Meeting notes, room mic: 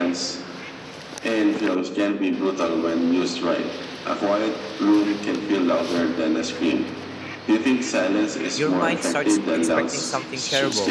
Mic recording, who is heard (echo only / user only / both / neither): both